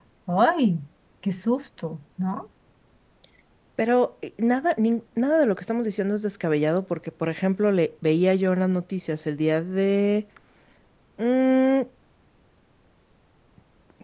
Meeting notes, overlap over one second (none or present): none